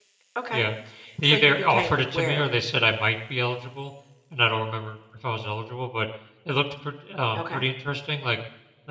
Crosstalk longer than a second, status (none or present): present